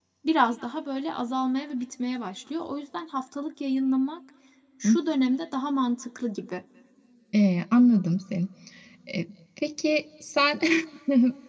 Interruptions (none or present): none